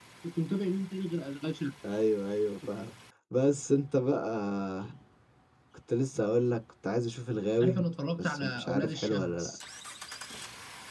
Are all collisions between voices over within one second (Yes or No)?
No